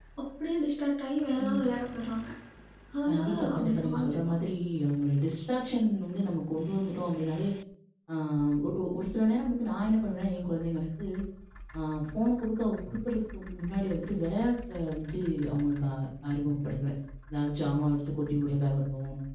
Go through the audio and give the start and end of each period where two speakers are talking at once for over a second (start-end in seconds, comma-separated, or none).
3.1-4.4